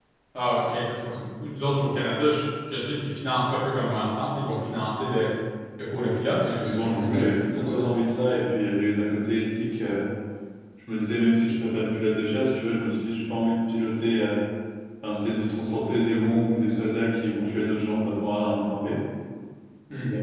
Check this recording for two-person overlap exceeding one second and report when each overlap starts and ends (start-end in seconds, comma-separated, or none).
6.6-8.1